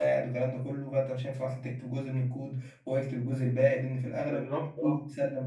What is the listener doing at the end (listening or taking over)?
taking over